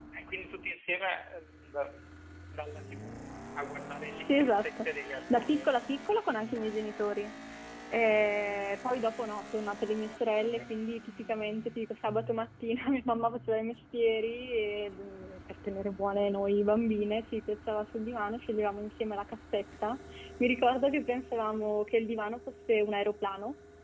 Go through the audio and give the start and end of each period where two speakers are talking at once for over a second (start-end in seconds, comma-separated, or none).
4.3-5.7